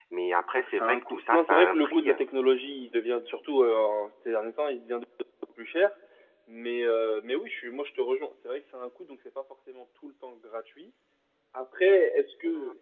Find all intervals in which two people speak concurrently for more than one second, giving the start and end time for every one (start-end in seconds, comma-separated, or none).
0.5-2.1